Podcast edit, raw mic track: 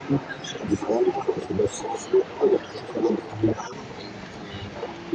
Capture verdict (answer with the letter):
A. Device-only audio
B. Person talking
A